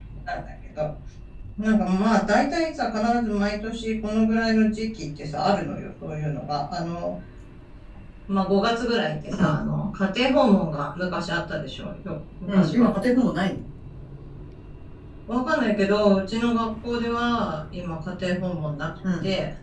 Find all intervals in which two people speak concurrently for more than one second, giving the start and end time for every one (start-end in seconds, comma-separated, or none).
none